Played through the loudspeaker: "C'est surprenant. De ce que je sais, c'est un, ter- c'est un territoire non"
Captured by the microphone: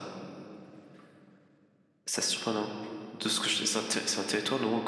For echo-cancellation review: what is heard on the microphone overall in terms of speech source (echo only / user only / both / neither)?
echo only